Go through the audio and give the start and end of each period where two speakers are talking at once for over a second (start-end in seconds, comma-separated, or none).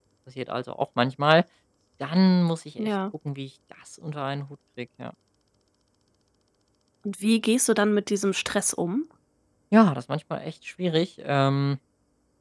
none